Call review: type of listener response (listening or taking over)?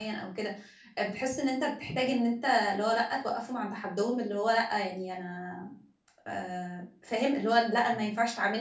listening